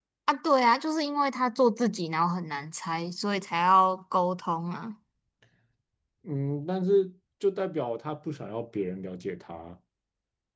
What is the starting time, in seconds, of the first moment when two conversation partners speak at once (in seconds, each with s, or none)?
none